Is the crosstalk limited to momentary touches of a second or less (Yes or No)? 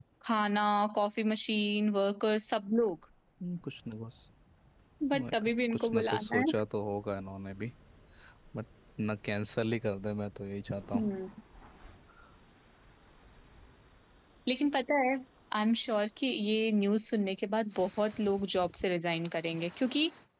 No